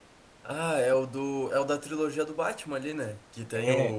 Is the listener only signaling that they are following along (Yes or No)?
Yes